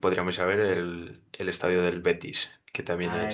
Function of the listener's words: taking over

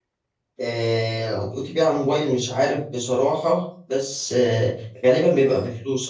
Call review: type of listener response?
listening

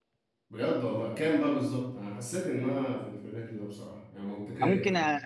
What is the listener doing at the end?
taking over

